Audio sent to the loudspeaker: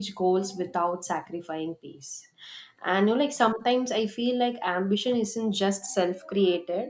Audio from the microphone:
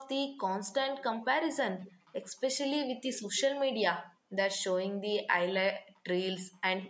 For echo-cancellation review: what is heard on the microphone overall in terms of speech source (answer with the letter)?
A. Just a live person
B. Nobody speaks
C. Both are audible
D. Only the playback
A